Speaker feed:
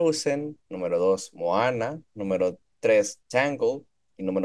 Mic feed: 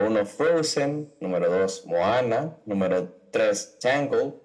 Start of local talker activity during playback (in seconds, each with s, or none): none